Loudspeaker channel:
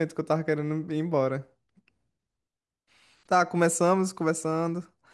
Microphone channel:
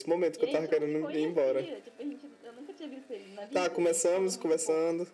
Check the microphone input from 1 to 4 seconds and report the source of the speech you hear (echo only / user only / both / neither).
both